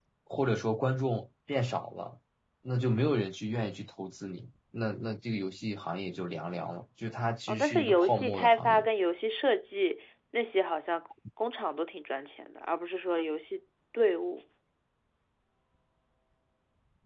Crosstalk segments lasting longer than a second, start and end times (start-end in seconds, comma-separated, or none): 7.5-8.9